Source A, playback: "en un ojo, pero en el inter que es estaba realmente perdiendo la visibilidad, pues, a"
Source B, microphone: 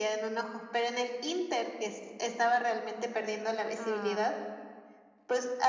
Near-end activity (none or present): present